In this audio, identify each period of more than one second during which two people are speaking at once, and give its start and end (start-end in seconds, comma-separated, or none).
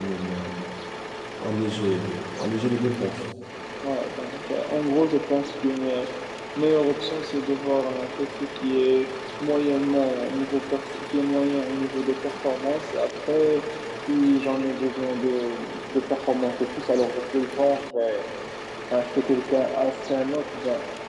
none